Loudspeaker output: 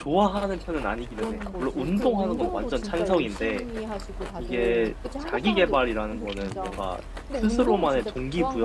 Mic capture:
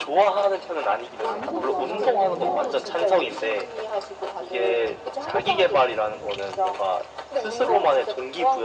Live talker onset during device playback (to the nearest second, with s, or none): 1 s